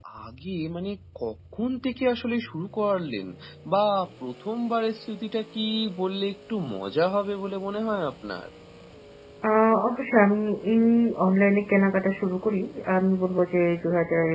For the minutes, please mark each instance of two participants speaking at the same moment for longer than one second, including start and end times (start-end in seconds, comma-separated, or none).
none